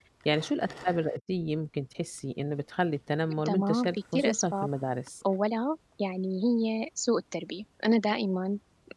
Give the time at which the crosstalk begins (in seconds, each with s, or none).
3.3 s